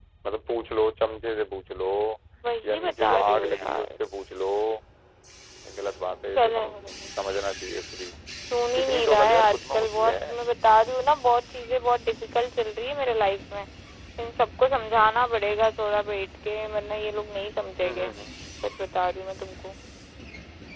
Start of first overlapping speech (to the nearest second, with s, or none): 3 s